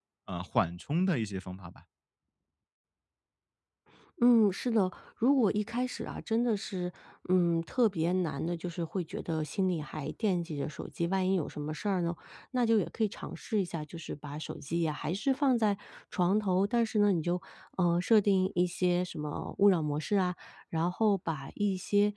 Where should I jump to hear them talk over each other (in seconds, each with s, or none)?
none